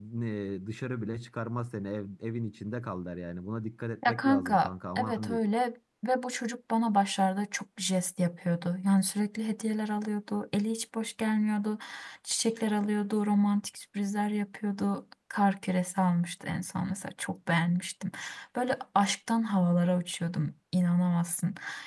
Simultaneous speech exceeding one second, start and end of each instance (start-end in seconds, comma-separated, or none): 4.0-5.4